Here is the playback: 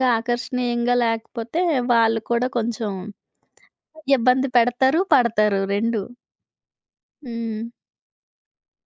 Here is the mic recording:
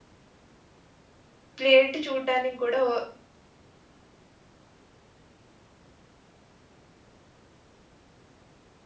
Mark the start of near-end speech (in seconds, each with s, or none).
1.6 s